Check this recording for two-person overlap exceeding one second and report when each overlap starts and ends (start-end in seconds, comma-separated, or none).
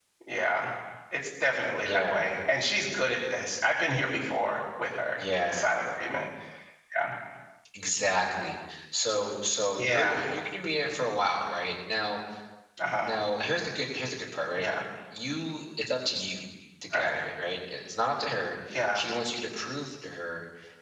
none